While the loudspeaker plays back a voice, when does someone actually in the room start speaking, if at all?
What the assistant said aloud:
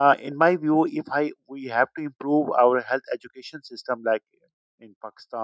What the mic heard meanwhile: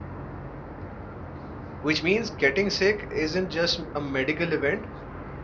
1.8 s

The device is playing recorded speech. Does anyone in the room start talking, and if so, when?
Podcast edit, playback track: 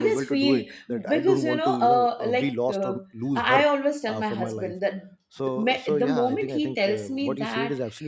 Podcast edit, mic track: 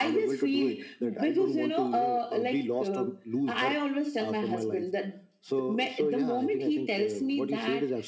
none

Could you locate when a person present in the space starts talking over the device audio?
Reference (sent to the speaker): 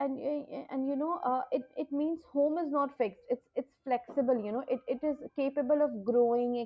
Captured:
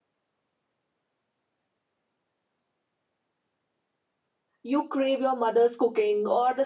4.6 s

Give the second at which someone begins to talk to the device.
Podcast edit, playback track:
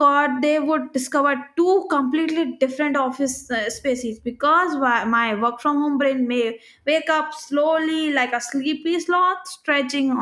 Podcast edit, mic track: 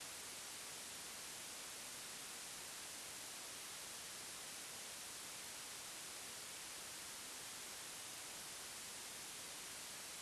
none

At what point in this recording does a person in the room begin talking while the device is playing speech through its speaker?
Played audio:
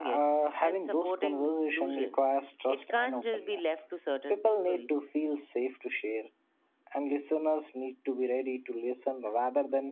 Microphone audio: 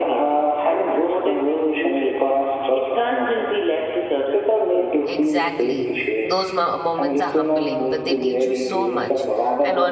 5.0 s

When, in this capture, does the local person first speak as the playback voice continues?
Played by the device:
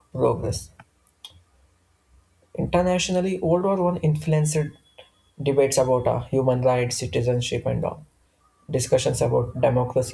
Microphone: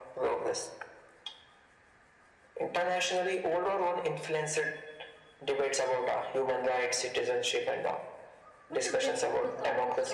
8.7 s

